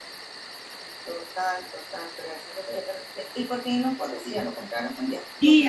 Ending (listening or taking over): taking over